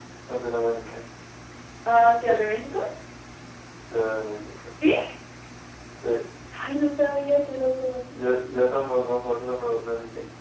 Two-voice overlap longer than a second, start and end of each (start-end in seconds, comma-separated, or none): none